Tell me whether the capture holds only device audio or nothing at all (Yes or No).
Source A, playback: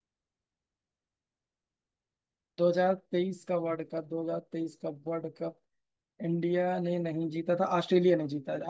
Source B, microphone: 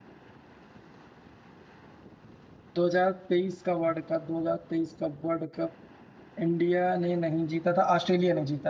Yes